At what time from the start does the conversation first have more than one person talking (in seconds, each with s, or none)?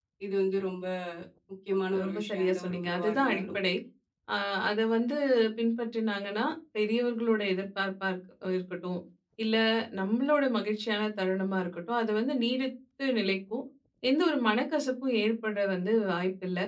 2.1 s